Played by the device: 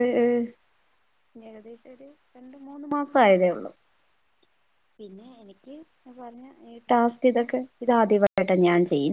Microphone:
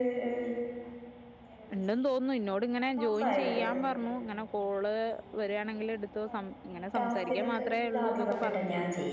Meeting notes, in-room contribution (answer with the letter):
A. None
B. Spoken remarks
B